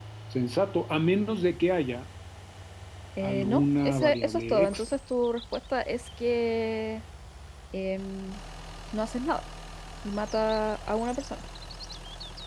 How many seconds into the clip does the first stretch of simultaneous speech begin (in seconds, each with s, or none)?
3.2 s